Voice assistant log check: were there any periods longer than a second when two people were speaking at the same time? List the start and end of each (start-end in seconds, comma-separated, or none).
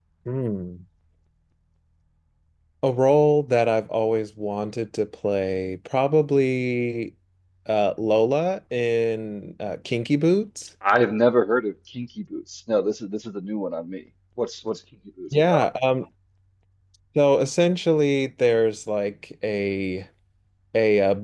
none